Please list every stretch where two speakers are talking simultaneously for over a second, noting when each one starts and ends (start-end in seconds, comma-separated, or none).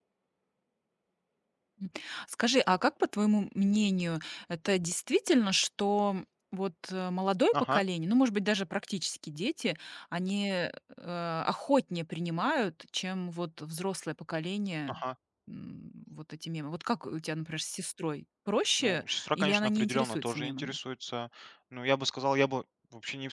18.8-20.8